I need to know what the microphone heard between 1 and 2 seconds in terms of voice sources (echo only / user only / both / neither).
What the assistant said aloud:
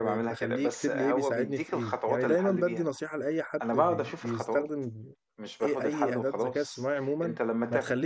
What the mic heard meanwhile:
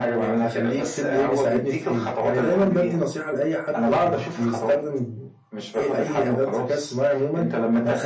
echo only